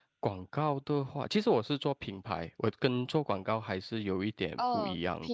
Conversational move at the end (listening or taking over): taking over